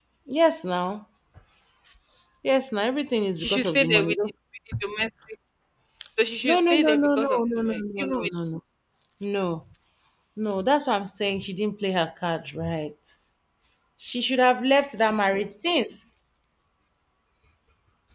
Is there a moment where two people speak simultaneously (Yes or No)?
Yes